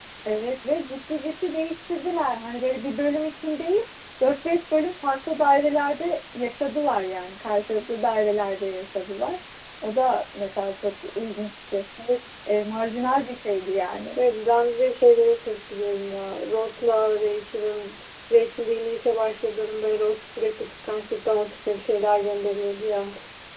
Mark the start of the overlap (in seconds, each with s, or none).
none